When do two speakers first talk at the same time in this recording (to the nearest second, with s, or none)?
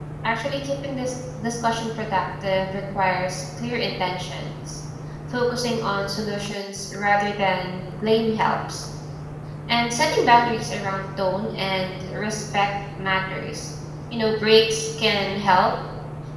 none